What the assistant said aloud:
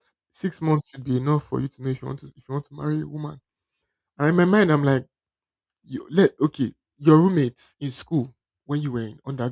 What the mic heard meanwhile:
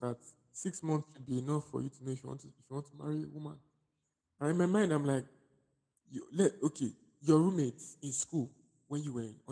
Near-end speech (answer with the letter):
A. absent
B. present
A